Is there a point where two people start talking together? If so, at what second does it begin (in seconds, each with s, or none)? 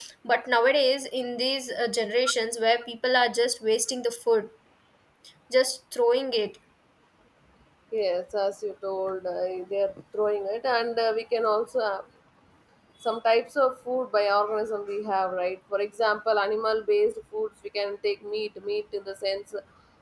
none